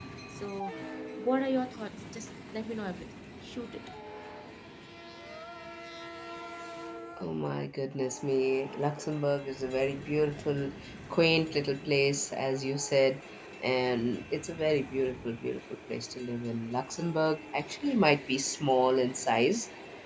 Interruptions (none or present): none